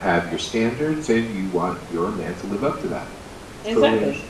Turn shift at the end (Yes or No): Yes